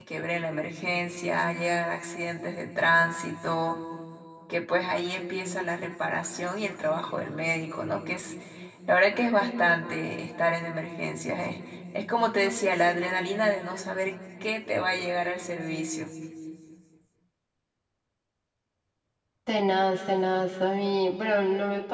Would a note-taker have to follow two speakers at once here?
No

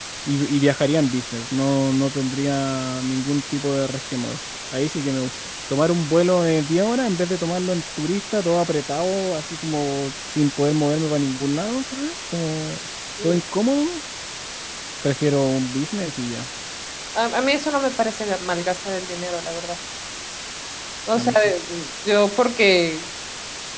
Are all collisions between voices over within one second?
Yes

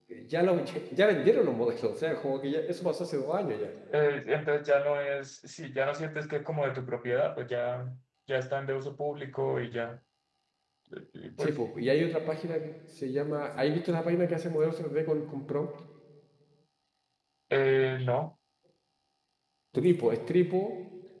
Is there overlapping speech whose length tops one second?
No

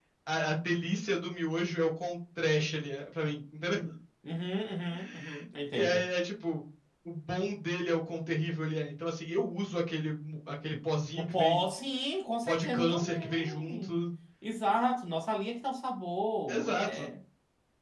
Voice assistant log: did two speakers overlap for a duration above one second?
Yes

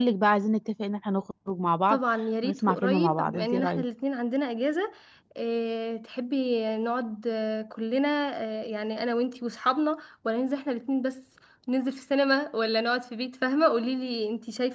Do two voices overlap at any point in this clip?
Yes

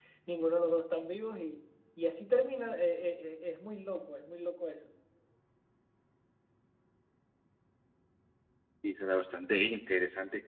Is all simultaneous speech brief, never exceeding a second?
Yes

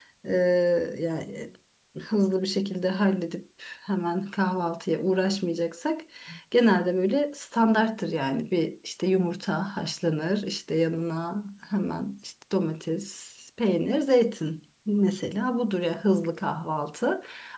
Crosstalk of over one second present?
No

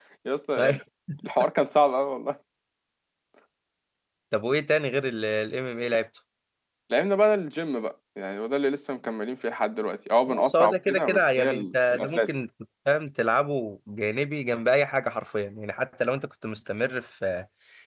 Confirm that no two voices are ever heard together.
No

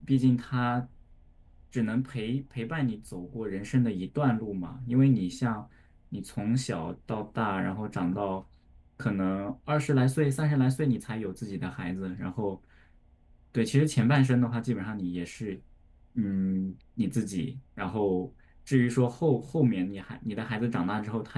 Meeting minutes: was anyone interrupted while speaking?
No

